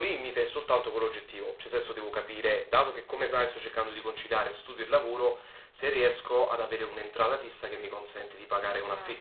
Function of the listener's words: taking over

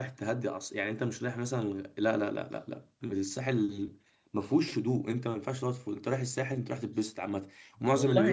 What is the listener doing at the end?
taking over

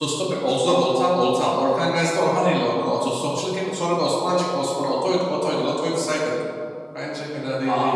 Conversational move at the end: taking over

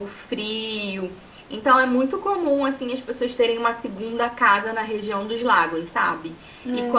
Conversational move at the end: listening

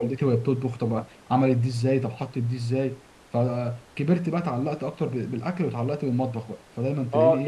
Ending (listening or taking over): taking over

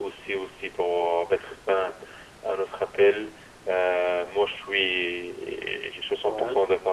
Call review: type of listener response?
listening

